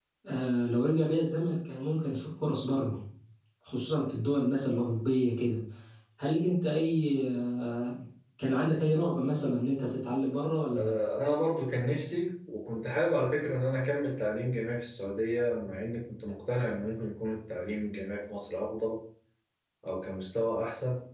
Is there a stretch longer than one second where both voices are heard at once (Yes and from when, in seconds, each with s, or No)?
No